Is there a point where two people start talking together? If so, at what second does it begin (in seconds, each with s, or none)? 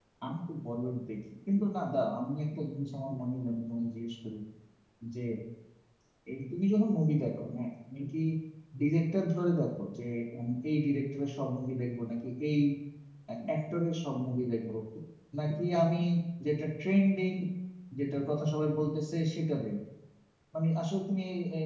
none